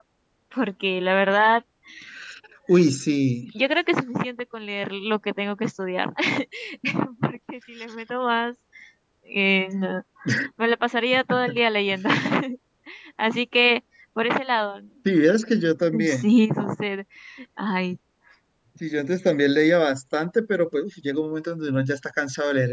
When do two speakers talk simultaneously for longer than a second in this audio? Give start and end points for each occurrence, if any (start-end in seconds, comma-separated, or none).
none